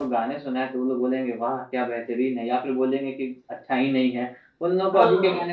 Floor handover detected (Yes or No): No